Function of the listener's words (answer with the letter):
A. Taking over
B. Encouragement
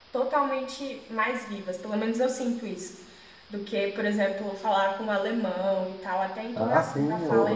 A